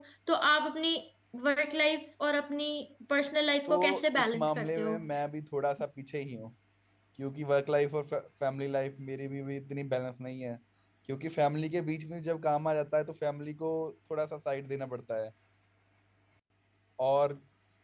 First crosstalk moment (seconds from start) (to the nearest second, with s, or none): 4 s